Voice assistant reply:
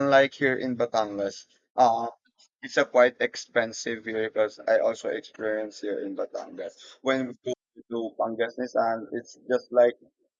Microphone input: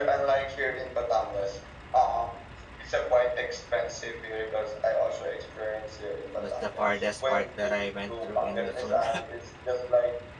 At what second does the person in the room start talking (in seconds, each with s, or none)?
6.3 s